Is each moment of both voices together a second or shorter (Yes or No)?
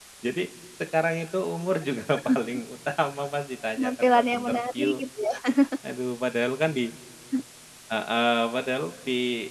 No